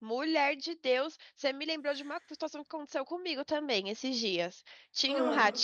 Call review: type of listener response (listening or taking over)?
listening